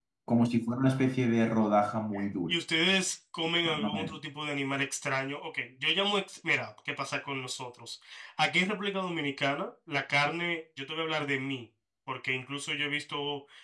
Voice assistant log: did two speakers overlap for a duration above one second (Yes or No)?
No